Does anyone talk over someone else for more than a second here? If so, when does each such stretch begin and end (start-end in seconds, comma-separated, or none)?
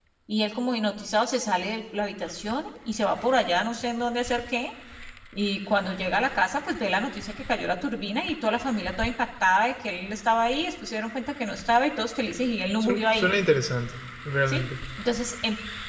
none